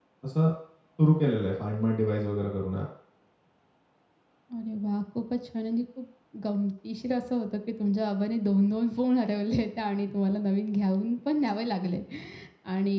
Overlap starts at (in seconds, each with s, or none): none